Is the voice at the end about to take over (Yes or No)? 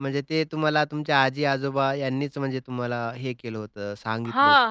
Yes